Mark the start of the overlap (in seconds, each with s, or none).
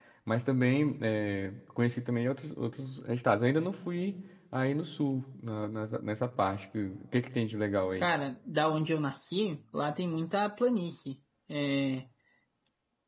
none